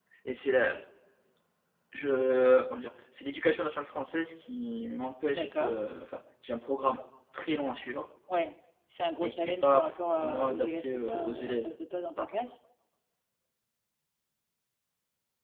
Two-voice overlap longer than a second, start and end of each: 9.2-11.8

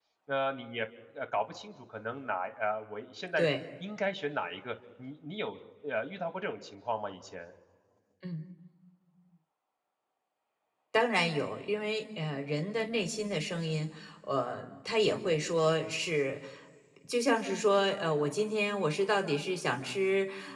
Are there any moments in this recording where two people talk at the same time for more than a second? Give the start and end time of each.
none

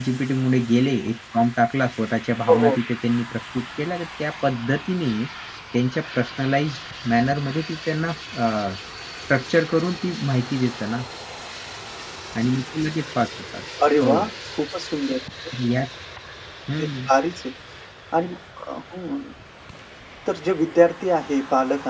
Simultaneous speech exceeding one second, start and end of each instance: none

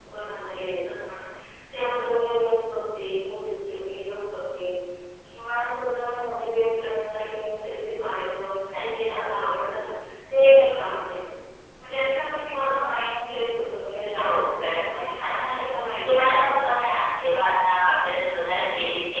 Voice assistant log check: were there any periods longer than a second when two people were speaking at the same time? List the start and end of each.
14.2-15.5

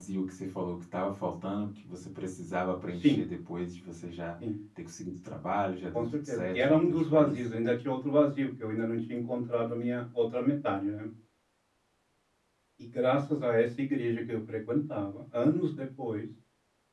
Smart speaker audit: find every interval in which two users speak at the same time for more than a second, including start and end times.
5.9-7.4

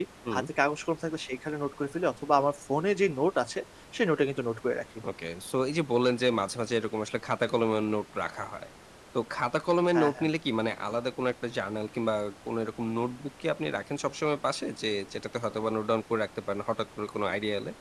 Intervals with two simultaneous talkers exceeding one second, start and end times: none

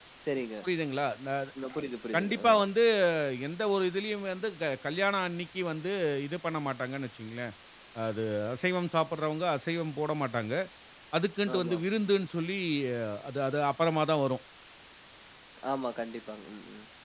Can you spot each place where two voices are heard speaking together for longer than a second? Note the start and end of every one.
none

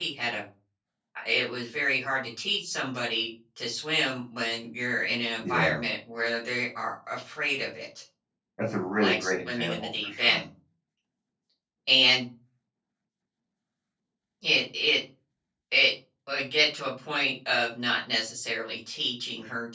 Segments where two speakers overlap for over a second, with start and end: 9.0-10.4

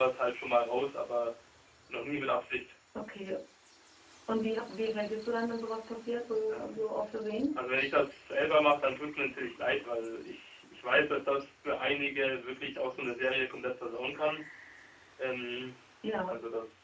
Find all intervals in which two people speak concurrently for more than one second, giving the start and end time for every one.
none

